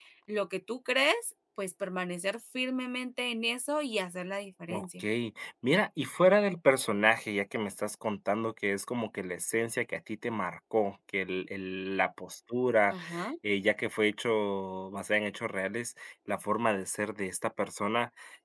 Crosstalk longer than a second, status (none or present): none